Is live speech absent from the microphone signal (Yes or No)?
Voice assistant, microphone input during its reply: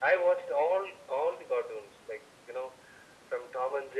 Yes